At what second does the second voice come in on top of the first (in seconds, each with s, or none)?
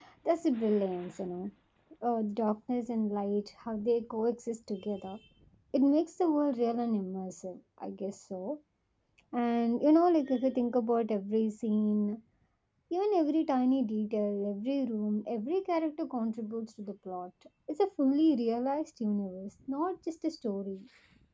none